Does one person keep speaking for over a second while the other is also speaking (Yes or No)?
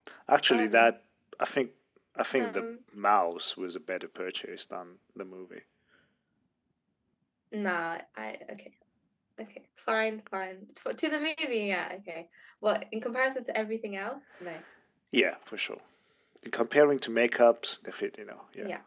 No